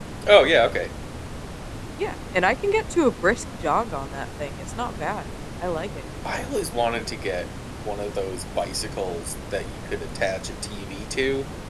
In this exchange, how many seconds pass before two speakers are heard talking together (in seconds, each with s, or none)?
none